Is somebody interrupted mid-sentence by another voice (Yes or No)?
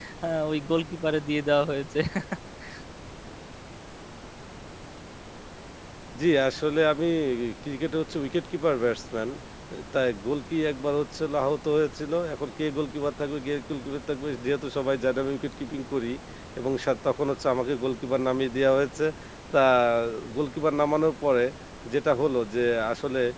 No